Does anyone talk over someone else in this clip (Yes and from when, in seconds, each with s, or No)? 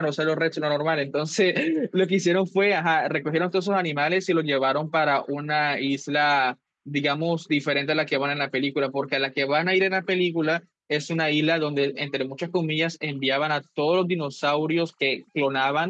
No